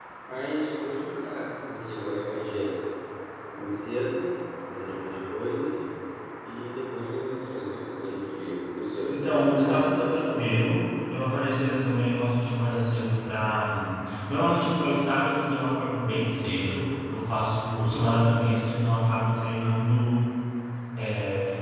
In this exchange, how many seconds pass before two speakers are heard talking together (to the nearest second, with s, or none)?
9 s